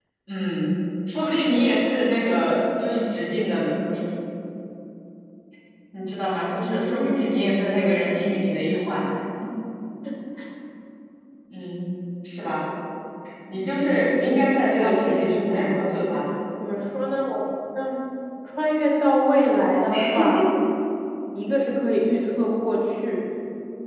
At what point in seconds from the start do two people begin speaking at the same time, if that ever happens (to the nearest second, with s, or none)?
7 s